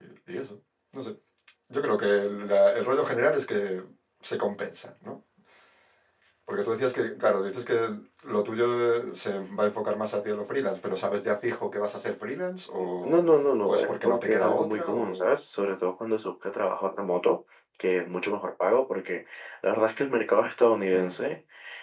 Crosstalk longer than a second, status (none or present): present